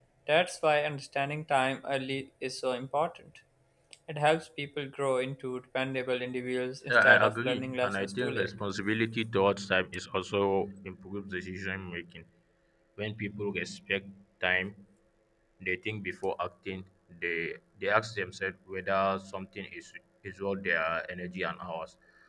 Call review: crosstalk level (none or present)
present